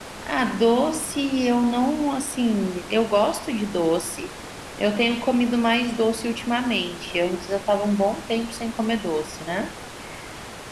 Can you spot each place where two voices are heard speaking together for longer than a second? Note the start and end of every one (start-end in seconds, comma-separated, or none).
none